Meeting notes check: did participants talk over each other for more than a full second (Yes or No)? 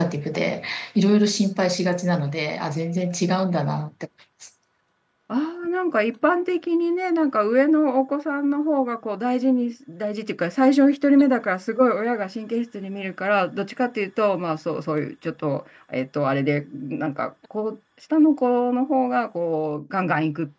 No